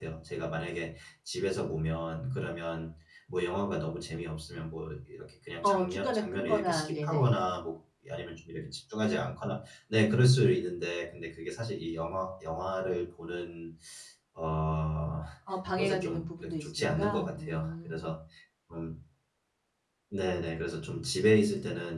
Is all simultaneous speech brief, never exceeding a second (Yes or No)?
No